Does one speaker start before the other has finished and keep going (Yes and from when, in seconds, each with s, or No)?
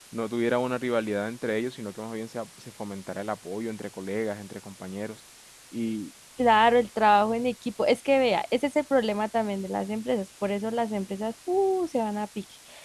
No